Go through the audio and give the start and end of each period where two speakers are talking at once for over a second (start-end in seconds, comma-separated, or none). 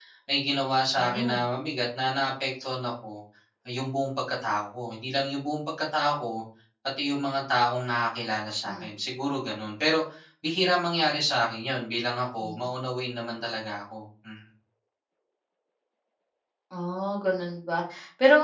none